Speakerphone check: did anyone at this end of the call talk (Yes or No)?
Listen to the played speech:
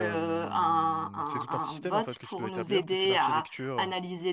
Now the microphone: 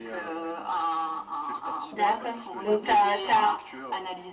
Yes